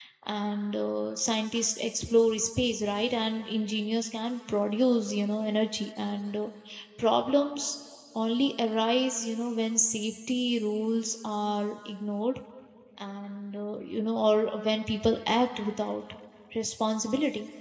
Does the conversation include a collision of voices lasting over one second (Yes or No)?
No